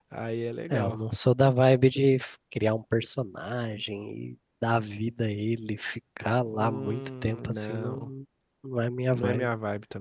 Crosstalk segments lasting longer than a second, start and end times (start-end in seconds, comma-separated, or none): 6.5-8.1